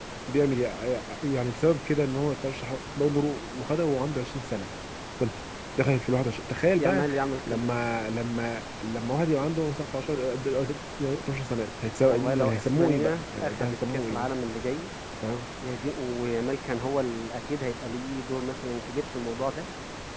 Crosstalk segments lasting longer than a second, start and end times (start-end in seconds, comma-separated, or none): 12.1-14.3